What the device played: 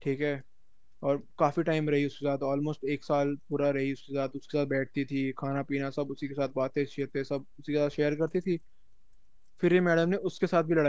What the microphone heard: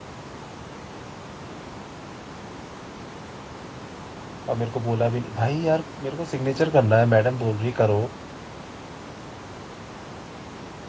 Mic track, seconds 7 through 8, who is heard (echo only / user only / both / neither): user only